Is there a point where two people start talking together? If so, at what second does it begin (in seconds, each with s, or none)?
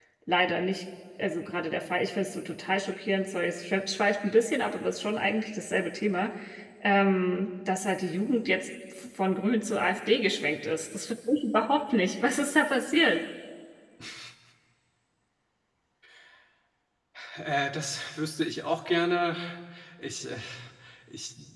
none